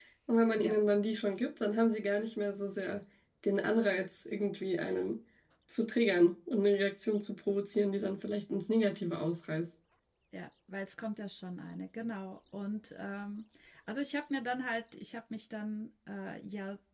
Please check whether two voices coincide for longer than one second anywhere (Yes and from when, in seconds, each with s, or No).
No